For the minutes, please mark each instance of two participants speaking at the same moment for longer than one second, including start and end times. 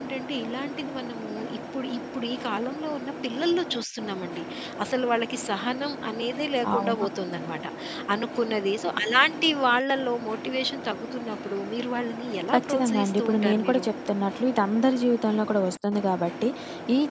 12.5-13.8

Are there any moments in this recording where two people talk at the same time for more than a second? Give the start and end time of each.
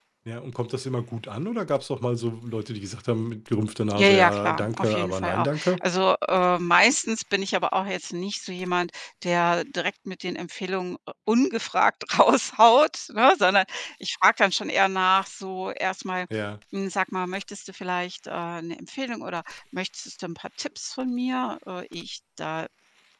3.9-5.8

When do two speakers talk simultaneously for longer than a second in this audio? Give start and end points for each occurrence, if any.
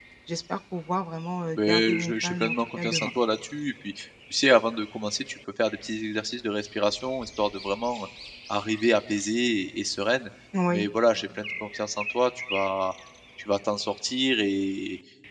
1.6-3.1

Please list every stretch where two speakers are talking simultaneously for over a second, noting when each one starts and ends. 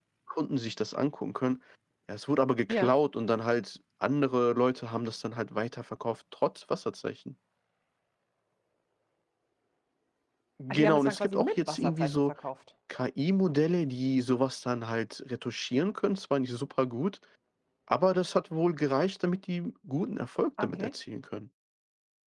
10.7-12.3

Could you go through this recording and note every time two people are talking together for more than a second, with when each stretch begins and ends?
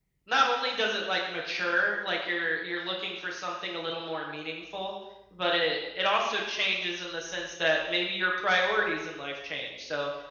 none

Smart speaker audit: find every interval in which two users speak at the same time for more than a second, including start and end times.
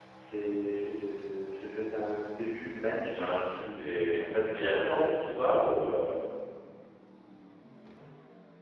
3.0-4.8

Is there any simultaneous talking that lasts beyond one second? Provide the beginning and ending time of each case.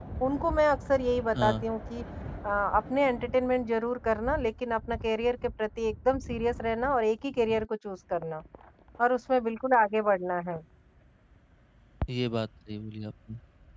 none

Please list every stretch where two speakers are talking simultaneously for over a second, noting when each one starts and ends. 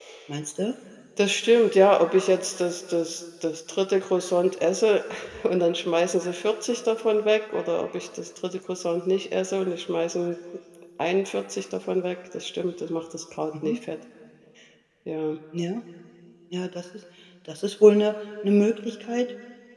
none

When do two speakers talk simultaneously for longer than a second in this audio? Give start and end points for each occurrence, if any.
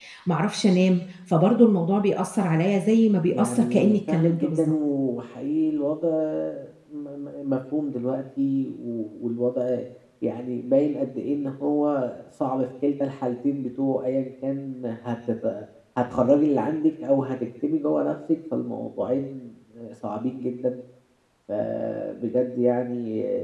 3.3-4.7

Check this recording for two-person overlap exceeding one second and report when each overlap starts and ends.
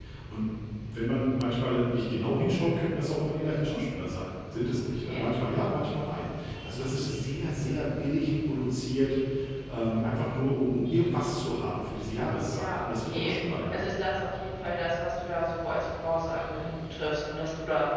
12.5-13.8

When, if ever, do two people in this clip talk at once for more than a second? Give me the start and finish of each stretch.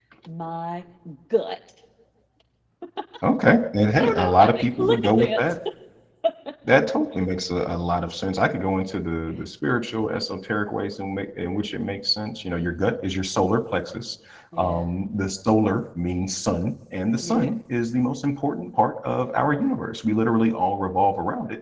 4.0-5.4

